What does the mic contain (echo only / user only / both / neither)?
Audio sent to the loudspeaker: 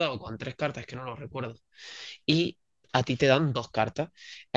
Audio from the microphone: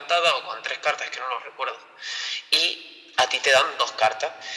echo only